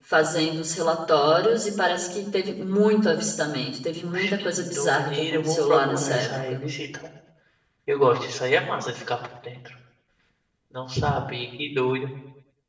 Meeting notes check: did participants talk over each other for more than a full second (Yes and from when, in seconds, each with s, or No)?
Yes, from 4.1 s